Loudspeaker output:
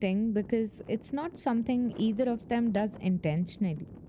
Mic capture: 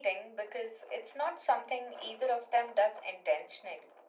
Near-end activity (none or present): none